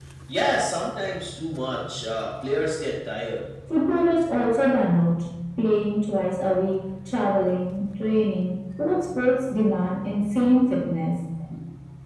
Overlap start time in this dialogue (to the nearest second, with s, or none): none